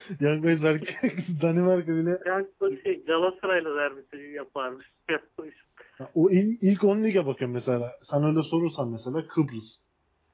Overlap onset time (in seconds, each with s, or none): none